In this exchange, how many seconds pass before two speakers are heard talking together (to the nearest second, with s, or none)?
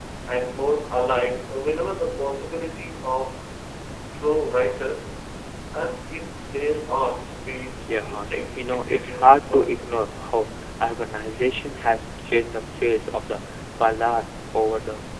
8 s